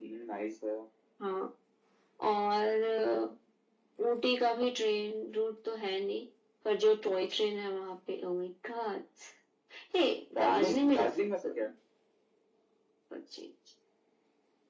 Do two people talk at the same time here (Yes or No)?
Yes